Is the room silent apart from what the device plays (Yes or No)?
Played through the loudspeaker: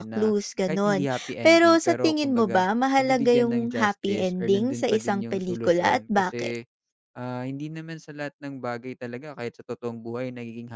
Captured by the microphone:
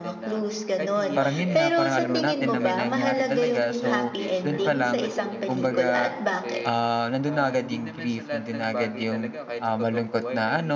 No